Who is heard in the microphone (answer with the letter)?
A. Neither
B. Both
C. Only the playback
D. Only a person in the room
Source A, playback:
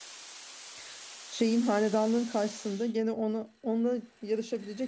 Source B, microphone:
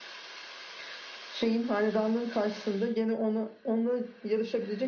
C